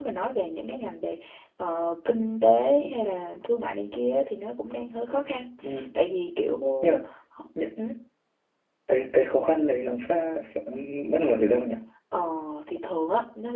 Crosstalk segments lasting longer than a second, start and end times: none

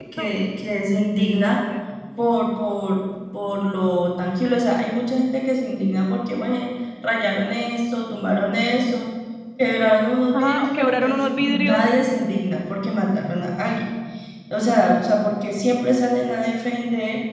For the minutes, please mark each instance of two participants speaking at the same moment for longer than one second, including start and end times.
10.3-11.8

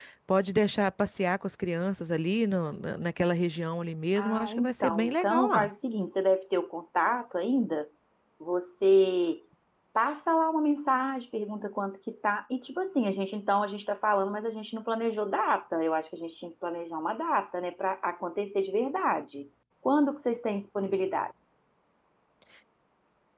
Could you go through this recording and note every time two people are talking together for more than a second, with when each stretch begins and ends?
4.2-5.7

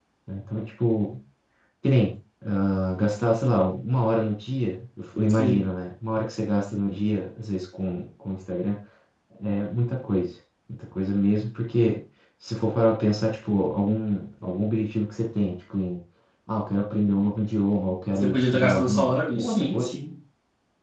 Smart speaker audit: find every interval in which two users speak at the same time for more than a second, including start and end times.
18.1-19.9

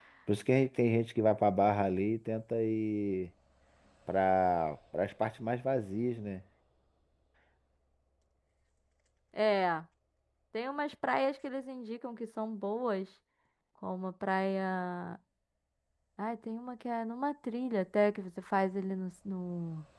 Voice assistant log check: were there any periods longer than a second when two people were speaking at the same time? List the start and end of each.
none

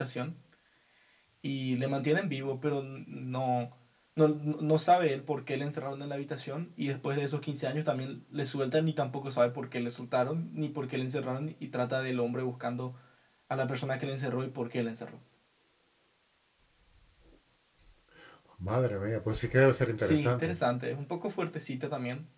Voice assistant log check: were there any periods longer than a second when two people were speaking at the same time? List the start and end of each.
none

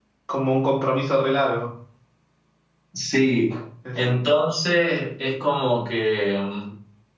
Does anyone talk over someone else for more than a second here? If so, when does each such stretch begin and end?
none

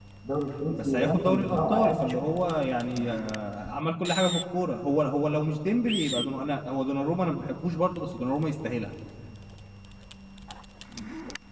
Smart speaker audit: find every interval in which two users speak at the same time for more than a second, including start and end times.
0.8-2.3

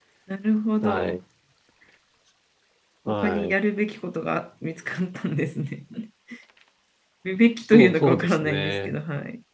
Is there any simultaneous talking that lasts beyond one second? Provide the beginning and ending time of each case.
7.7-9.0

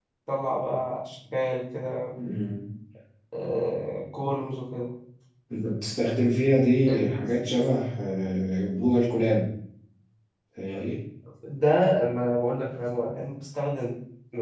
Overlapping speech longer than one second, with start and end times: none

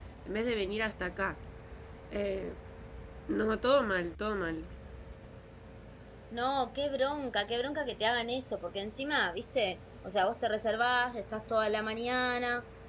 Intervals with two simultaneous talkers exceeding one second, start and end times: none

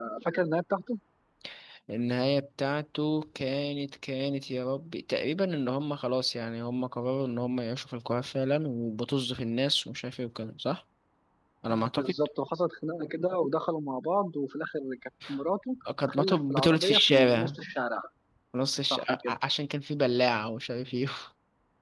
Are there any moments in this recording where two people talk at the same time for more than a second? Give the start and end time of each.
16.0-17.6

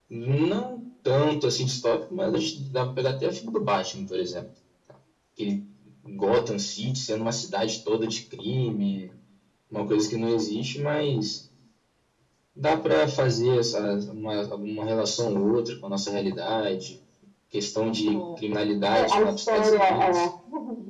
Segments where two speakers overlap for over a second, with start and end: 18.9-20.3

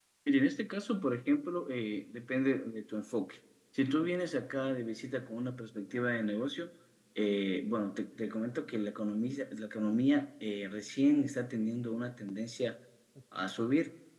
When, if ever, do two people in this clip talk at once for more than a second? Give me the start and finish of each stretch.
none

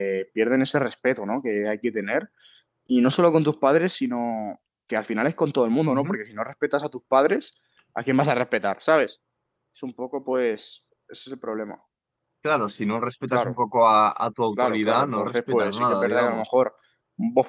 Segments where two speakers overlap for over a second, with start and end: 14.6-16.4

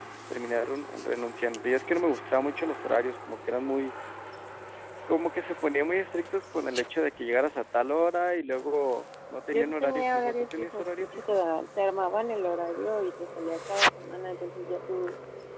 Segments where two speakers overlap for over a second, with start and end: 9.5-11.3

